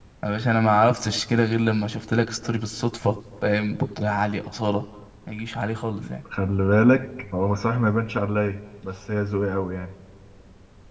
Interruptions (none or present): none